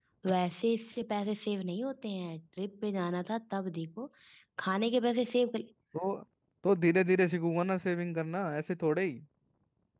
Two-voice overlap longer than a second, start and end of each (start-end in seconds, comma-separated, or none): none